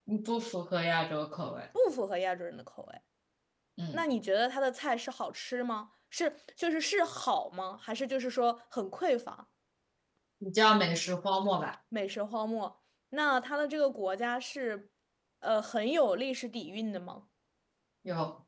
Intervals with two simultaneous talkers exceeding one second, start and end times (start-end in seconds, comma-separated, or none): none